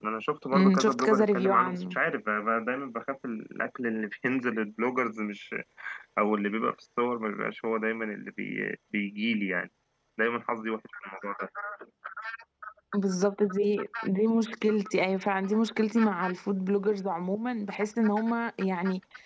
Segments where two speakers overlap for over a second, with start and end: 0.5-2.0

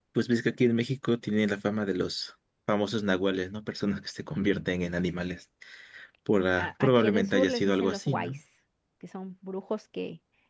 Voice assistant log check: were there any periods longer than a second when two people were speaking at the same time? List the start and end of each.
6.5-8.4

